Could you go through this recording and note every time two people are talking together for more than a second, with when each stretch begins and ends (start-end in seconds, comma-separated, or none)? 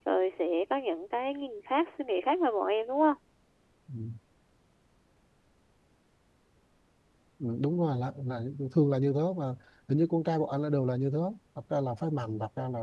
none